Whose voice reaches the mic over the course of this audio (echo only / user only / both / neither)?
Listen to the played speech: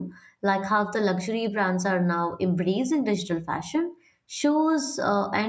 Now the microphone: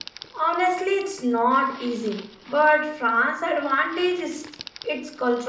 user only